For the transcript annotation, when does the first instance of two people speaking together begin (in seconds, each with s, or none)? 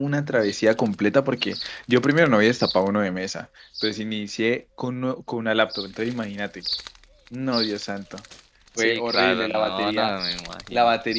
8.8 s